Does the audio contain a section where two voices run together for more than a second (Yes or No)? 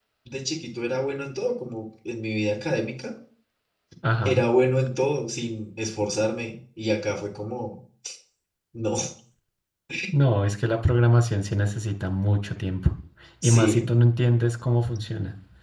No